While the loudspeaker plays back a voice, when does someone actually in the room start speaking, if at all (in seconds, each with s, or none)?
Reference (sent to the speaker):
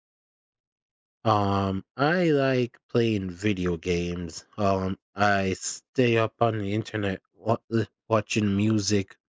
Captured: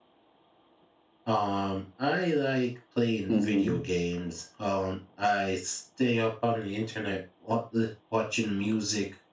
3.3 s